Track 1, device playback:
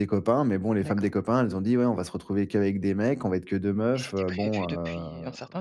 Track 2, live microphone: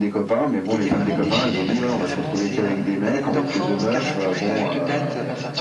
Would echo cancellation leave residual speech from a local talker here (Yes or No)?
Yes